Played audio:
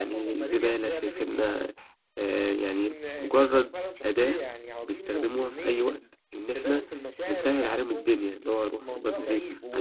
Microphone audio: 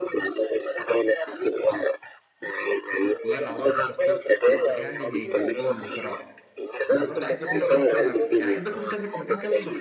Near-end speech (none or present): present